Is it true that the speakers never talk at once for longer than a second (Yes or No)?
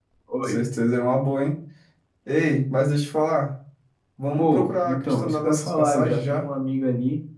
No